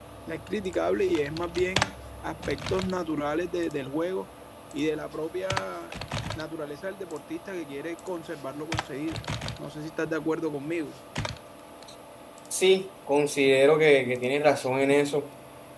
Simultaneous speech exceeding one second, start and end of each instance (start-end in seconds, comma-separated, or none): none